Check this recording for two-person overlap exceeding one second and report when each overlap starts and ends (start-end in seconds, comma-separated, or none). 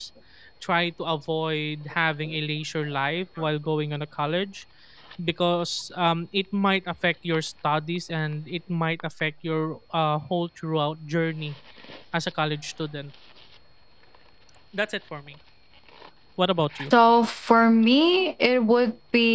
none